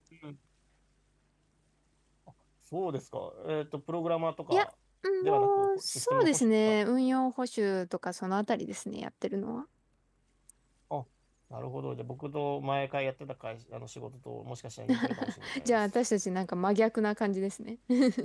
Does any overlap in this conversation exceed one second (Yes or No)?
Yes